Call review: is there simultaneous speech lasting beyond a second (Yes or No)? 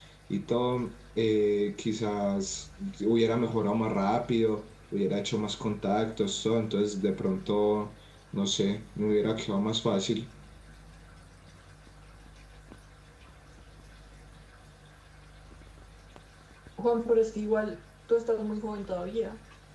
No